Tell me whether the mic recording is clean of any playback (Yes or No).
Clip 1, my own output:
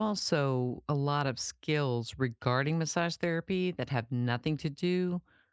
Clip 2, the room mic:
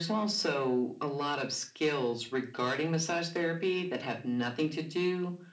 No